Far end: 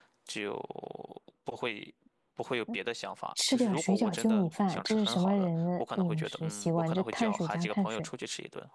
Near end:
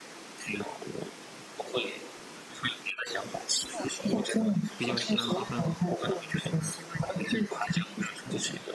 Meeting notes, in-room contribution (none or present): present